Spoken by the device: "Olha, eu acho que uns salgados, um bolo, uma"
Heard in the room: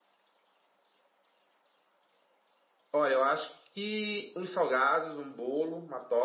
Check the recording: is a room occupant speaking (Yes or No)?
No